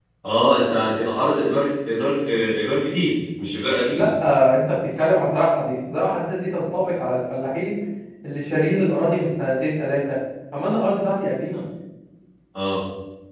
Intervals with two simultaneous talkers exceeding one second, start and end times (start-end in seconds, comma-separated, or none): none